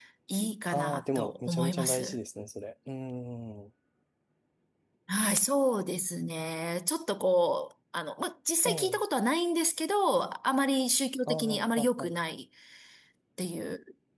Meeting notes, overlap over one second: present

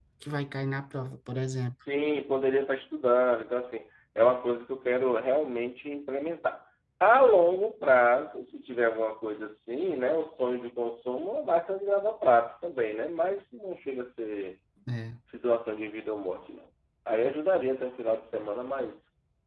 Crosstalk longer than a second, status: none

